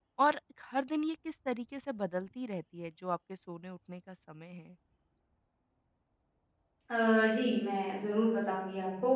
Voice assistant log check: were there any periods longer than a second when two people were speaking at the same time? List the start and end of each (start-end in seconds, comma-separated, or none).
none